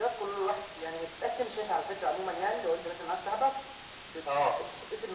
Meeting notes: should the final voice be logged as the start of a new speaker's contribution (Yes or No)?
No